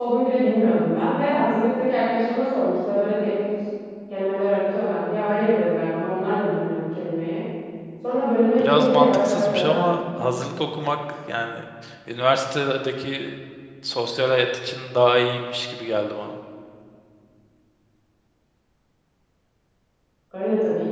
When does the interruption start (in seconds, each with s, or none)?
8.6 s